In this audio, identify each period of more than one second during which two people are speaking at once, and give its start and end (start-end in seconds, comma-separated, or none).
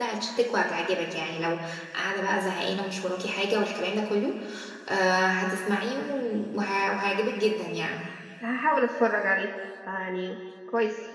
none